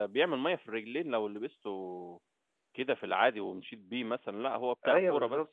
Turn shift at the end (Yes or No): Yes